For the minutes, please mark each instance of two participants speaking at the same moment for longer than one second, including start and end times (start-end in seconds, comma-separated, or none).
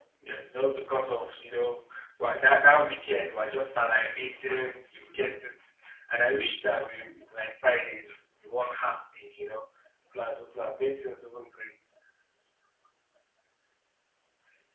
none